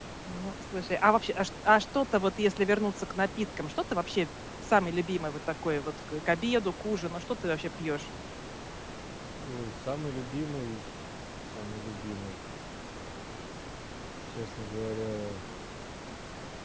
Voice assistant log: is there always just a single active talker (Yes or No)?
Yes